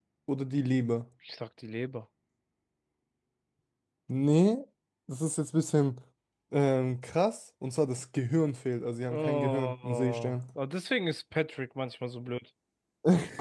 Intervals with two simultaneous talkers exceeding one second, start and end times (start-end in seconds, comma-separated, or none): 9.1-10.4